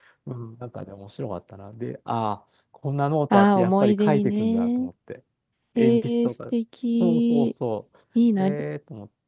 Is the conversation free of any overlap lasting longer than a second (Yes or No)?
No